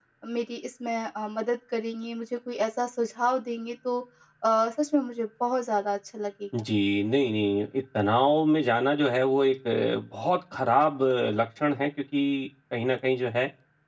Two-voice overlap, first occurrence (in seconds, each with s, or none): none